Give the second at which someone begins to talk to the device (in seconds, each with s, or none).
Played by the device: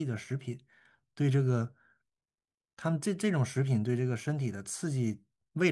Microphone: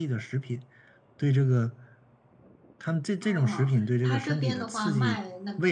3.2 s